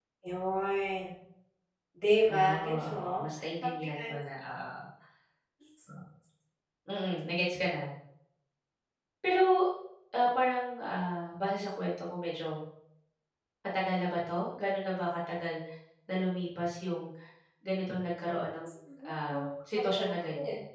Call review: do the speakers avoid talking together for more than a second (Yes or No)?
No